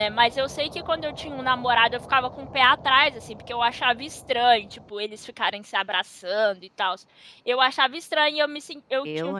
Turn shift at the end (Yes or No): No